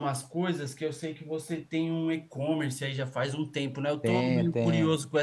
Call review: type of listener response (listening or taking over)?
listening